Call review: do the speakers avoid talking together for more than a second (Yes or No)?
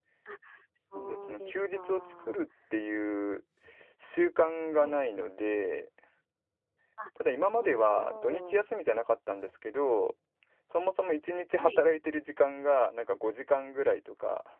No